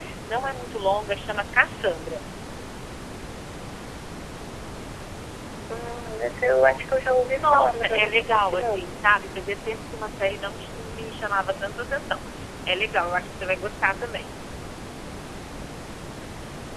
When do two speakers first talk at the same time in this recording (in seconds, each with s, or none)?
7.2 s